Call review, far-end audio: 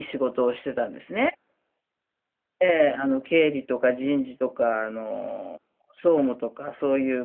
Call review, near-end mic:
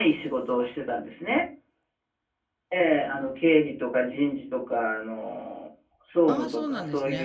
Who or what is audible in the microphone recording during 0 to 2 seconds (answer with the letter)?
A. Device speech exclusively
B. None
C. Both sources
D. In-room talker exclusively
A